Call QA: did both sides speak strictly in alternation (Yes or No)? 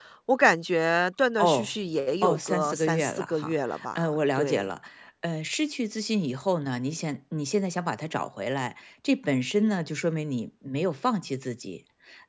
No